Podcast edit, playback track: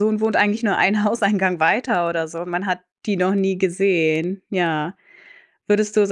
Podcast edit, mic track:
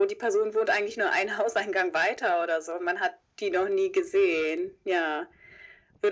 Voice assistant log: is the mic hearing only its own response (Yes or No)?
Yes